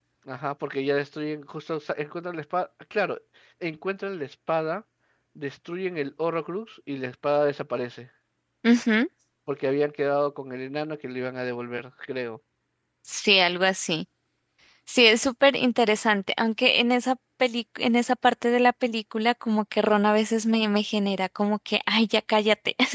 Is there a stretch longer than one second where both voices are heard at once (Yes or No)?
No